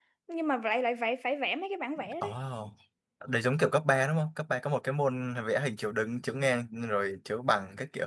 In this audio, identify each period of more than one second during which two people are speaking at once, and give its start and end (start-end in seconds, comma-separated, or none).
none